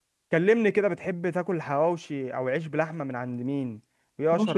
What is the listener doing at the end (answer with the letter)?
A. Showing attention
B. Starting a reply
B